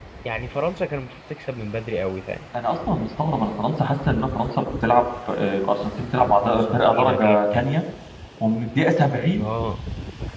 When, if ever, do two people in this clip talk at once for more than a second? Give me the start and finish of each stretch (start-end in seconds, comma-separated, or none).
6.4-7.7